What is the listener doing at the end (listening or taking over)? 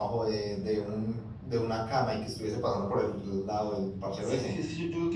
taking over